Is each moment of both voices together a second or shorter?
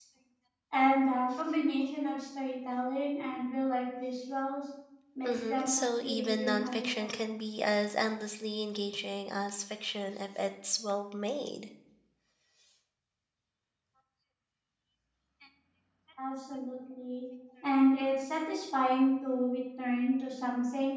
No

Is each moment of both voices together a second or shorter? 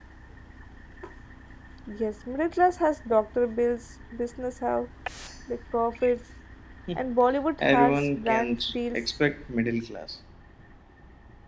No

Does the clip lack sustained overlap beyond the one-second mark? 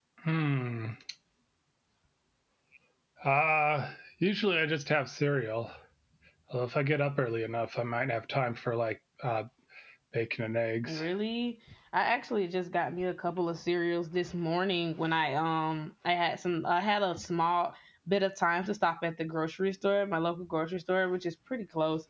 Yes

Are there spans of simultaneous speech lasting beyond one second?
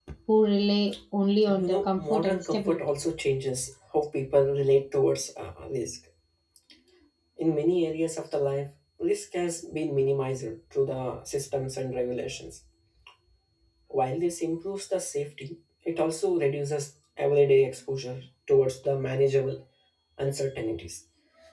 Yes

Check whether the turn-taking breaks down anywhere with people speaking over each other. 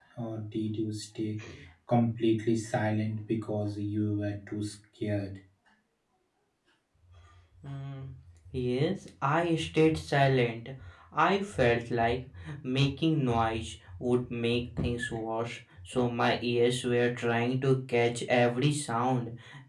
No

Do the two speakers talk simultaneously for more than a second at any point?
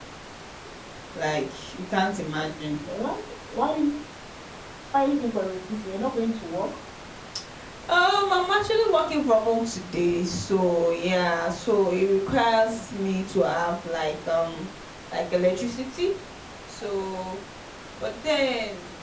No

